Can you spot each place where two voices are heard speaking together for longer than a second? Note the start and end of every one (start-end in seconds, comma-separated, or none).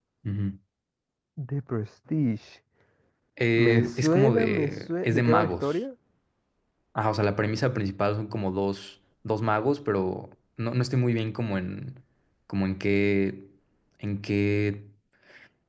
3.5-5.7